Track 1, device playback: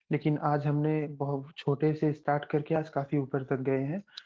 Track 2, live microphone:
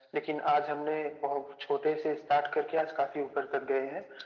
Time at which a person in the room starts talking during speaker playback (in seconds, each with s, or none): none